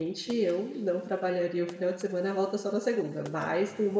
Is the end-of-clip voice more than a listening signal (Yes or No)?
No